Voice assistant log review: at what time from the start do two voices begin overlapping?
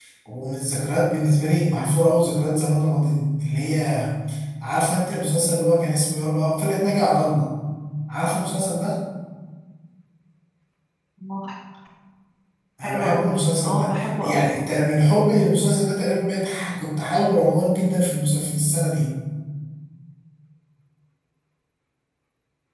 12.8 s

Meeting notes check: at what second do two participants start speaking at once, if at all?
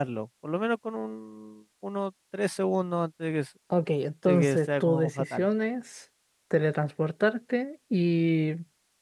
4.3 s

